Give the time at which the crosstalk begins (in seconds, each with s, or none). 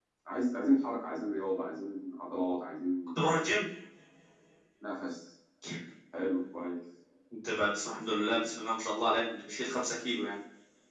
none